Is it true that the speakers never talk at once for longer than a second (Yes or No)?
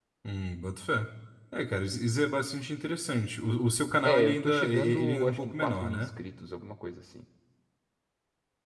No